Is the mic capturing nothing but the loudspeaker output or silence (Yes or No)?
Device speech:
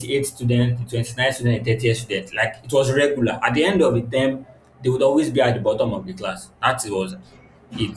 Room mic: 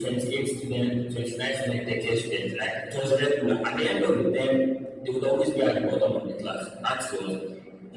Yes